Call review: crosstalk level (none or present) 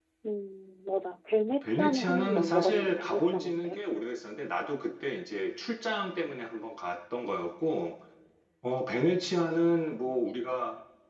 present